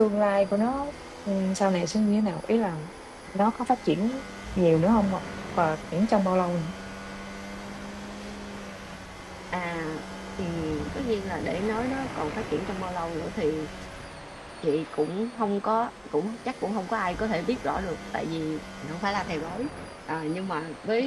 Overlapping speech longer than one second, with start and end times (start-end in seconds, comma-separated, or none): none